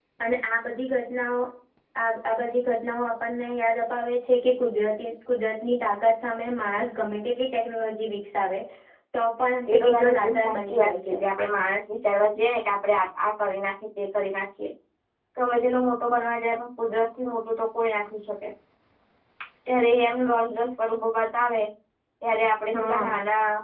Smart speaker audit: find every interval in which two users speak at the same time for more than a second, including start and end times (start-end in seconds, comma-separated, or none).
9.7-11.2